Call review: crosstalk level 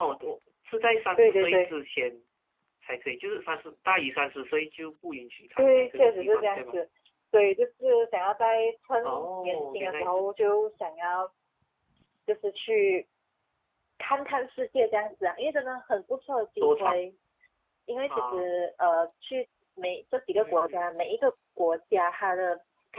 present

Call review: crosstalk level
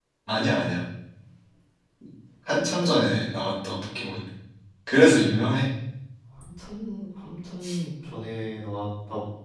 none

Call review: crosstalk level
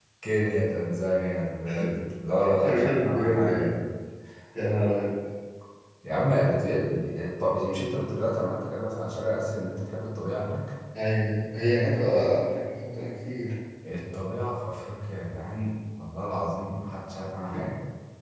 present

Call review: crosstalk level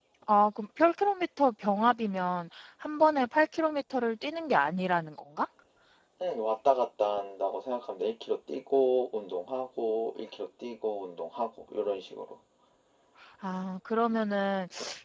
none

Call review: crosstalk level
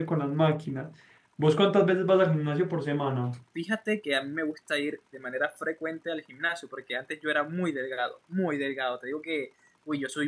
none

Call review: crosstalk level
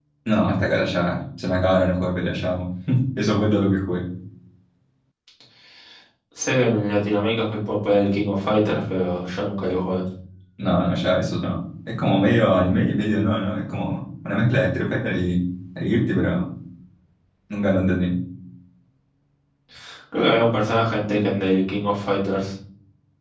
none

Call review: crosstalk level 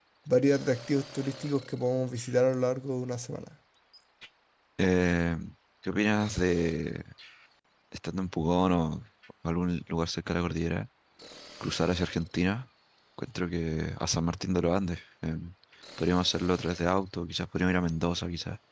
none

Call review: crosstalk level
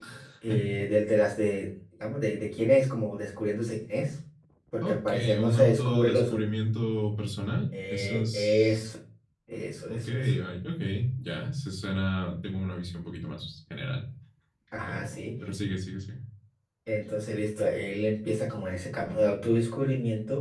present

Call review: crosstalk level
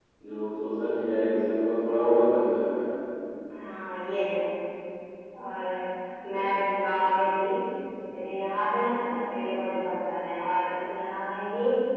none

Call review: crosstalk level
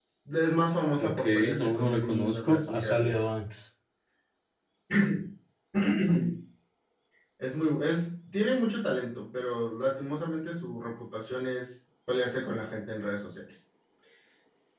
present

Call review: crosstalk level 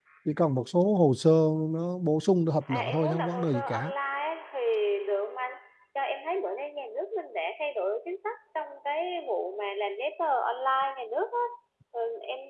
present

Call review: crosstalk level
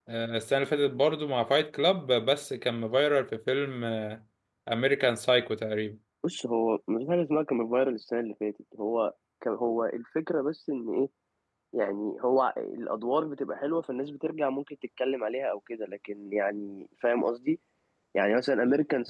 none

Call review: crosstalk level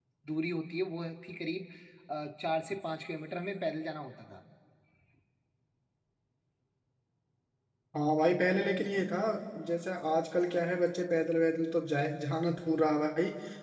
none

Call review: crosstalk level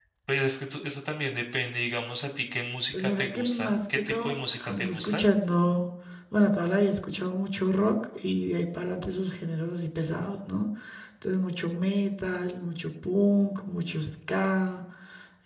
present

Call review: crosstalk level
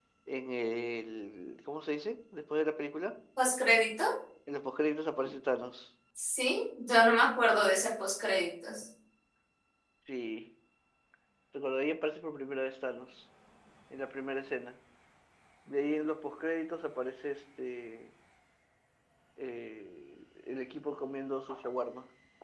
none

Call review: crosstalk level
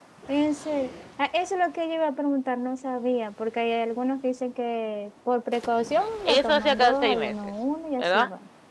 present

